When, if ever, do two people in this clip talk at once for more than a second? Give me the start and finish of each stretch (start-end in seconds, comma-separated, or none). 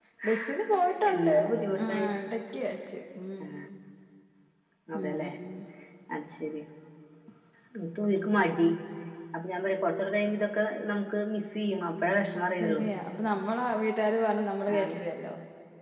none